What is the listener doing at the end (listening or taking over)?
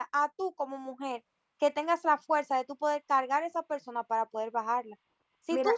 listening